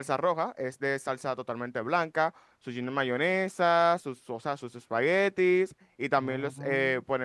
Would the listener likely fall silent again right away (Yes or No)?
Yes